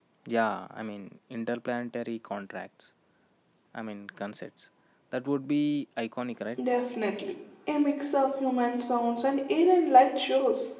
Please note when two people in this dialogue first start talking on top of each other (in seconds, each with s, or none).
none